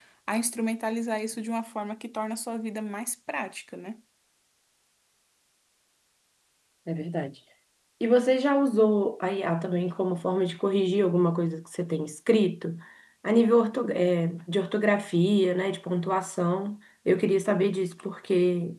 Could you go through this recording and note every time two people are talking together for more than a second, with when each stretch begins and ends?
none

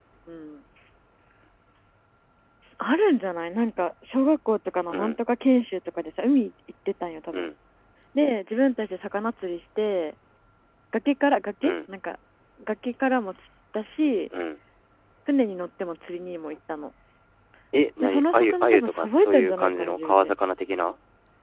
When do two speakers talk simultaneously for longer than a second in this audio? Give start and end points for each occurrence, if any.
18.0-20.3

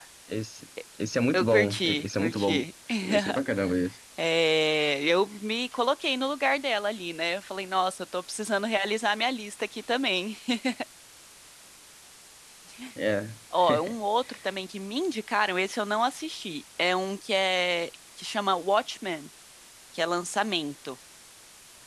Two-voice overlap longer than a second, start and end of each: 1.3-2.6

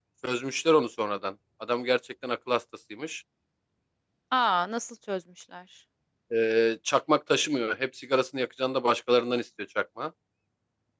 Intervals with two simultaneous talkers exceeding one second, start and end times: none

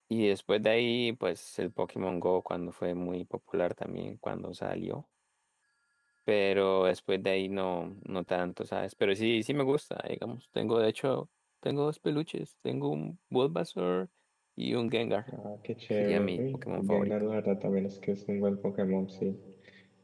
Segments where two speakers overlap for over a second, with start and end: 15.9-17.1

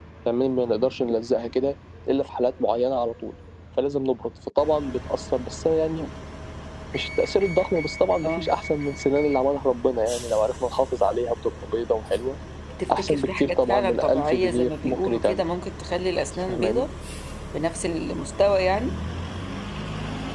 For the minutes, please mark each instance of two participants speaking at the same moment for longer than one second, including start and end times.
12.9-15.4

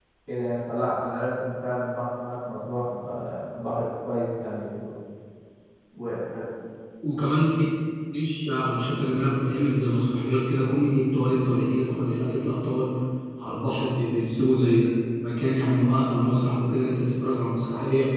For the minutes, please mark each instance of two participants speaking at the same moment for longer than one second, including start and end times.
none

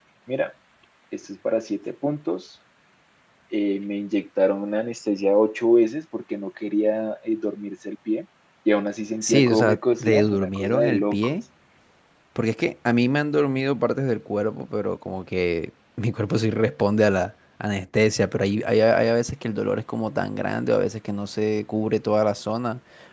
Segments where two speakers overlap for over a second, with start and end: 9.2-11.4

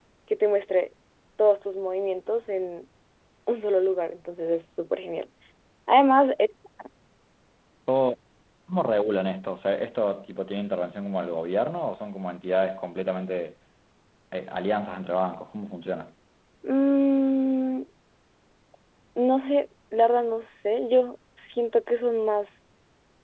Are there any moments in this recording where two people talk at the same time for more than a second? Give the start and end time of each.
none

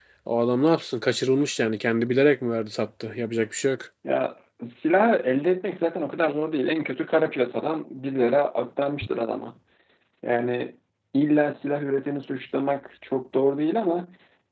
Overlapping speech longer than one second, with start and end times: none

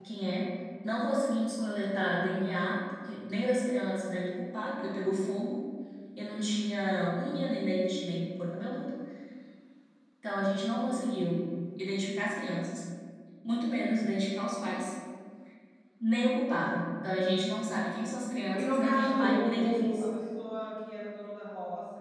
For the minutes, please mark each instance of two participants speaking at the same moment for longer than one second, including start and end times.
18.5-20.0

